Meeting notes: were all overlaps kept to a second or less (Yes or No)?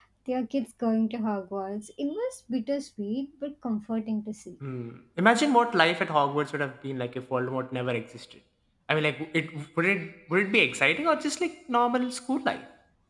Yes